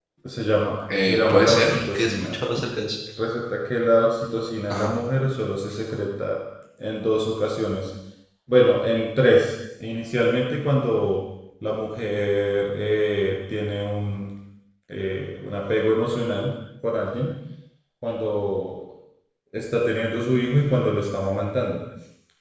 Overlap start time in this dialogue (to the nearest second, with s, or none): 1 s